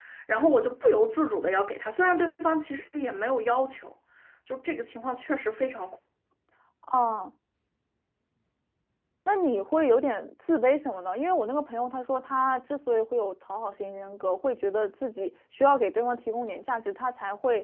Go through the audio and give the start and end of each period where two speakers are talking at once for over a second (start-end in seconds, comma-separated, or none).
none